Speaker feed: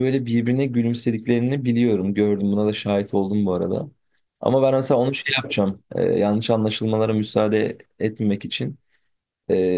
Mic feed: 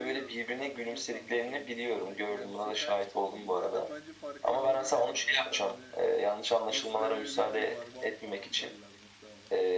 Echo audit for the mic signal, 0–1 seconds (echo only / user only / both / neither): both